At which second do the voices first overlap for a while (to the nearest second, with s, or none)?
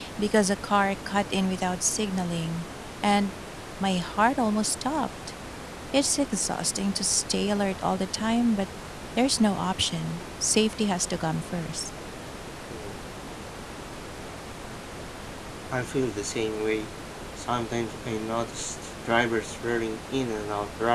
none